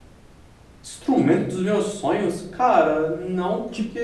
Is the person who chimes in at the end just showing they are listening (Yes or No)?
Yes